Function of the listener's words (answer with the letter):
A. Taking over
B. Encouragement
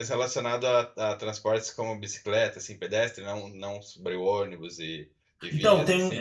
A